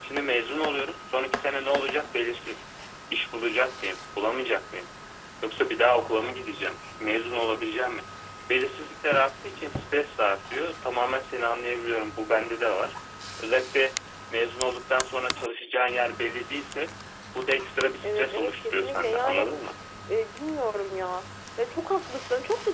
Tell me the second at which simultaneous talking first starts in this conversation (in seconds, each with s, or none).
18.0 s